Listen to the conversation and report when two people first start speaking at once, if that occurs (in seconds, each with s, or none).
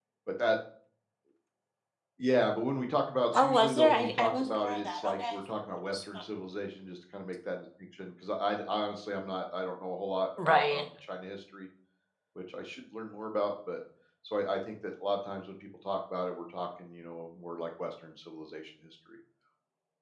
3.3 s